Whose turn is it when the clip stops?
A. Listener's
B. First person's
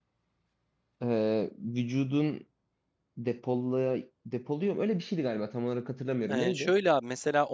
A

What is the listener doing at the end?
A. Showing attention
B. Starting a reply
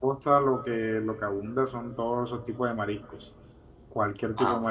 A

